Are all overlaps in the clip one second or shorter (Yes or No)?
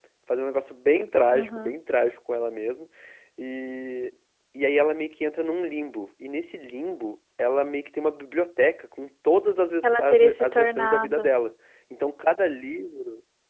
No